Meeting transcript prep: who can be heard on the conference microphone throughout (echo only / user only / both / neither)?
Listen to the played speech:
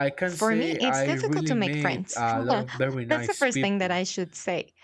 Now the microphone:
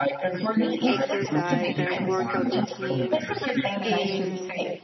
both